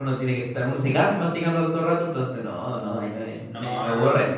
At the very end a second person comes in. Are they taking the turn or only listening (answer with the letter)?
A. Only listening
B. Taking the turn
B